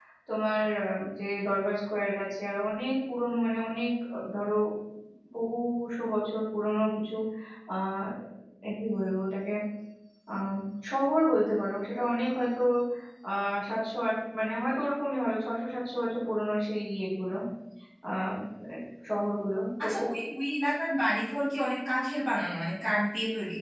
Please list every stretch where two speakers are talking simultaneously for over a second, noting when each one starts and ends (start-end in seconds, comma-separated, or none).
none